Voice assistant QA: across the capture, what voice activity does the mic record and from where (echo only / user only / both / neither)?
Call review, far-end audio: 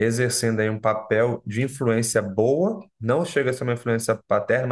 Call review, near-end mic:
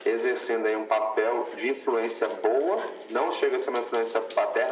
echo only